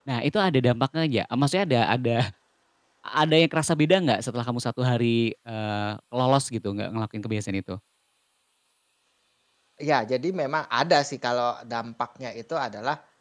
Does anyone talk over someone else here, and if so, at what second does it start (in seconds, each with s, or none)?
none